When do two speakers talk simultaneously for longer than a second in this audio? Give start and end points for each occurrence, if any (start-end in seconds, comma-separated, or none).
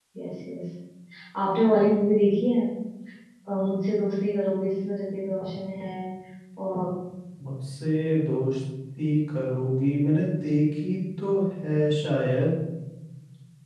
none